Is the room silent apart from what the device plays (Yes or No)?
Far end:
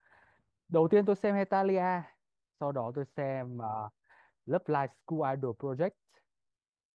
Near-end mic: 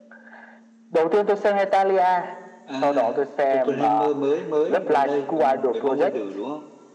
No